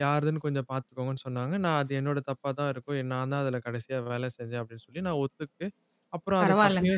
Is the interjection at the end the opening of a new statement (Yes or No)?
No